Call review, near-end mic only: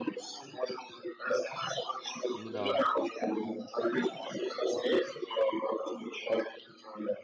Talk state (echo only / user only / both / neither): both